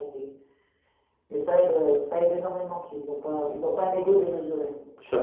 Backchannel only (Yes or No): No